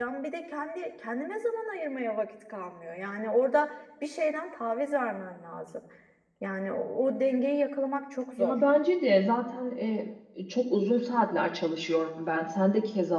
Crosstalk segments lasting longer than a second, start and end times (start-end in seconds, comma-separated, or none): none